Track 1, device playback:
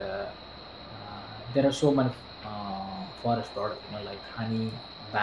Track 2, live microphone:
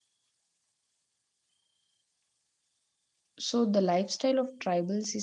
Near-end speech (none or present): present